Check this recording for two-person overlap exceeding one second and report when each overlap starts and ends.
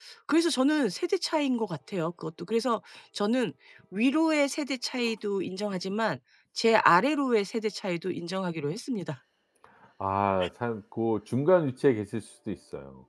none

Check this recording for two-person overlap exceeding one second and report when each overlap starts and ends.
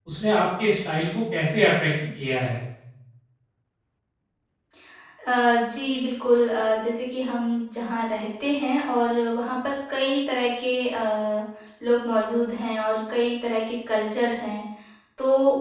none

